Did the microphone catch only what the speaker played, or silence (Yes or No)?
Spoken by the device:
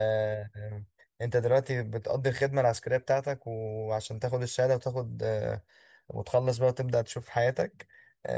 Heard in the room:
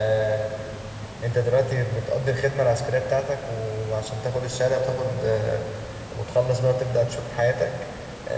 Yes